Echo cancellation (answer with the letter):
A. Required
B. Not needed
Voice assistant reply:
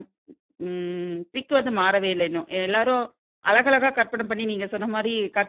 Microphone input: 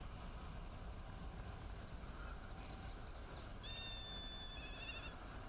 B